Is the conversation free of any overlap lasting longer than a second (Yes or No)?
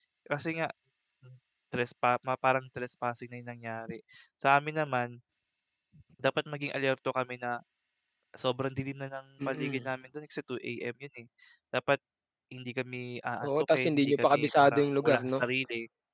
No